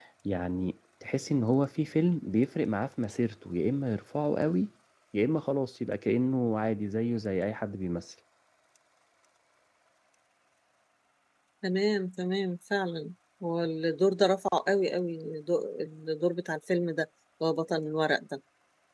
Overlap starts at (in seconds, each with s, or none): none